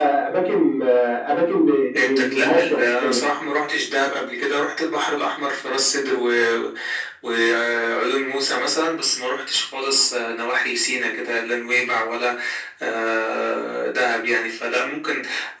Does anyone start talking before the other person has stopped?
Yes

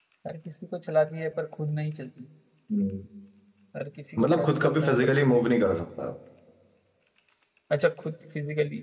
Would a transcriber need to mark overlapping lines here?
Yes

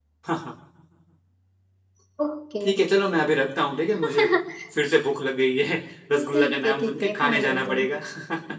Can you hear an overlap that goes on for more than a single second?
Yes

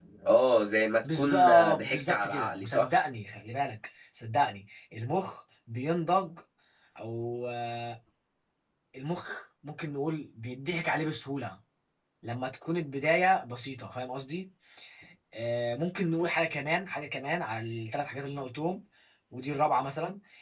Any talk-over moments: Yes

